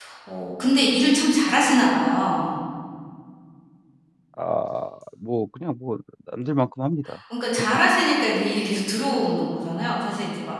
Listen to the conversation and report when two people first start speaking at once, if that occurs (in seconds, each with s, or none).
none